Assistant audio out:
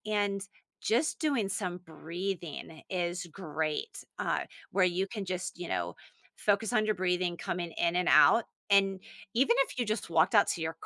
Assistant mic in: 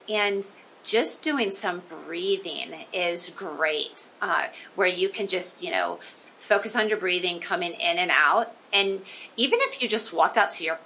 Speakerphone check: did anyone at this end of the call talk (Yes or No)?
No